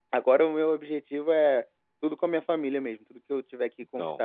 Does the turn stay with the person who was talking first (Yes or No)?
Yes